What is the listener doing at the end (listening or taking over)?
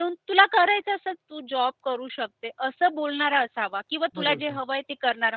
listening